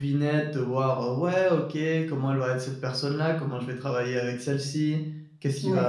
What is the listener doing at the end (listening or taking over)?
listening